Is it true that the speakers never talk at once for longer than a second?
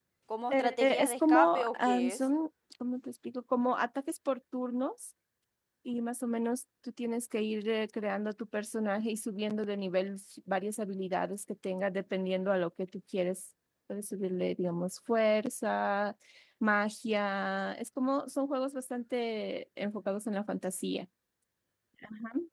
No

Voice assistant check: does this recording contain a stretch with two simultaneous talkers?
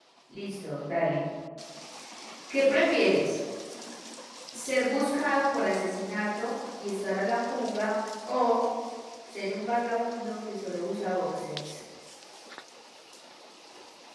No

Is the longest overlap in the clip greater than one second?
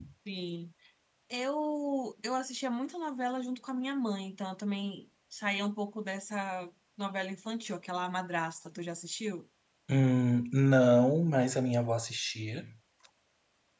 No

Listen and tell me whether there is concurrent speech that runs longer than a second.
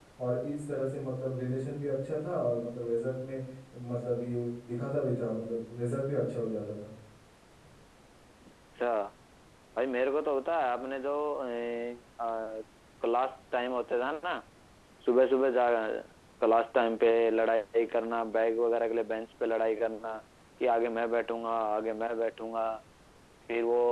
No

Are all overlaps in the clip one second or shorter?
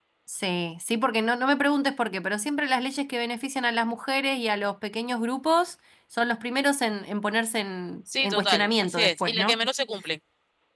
No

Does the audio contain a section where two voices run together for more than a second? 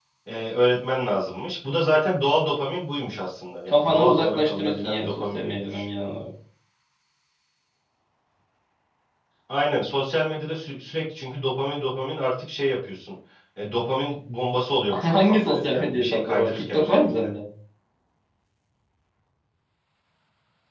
Yes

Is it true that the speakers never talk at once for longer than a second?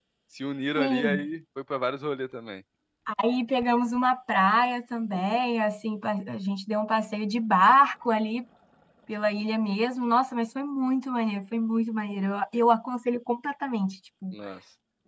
Yes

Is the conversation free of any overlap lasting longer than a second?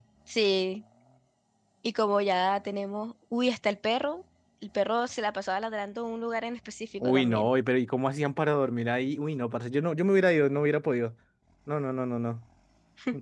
Yes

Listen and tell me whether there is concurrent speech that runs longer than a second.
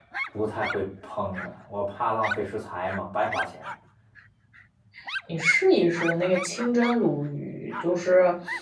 No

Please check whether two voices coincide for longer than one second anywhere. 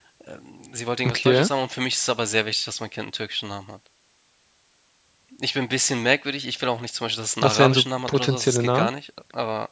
Yes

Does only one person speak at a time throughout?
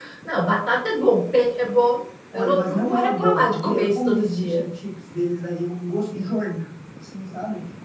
No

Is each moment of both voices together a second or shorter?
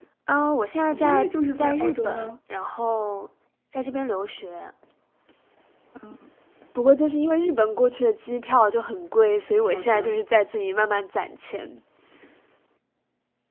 No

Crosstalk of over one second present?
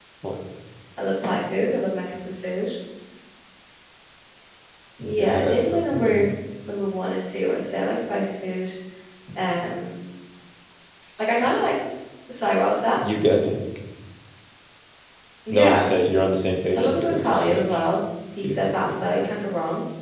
Yes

